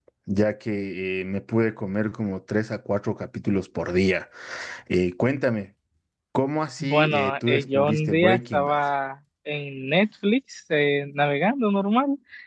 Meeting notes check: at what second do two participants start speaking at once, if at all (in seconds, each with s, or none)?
6.8 s